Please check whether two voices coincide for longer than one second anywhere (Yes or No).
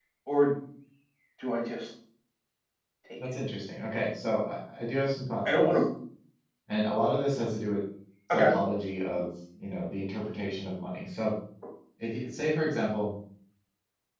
No